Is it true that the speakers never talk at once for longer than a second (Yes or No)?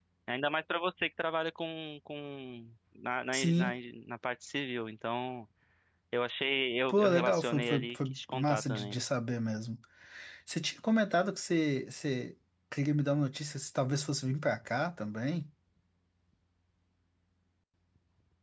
No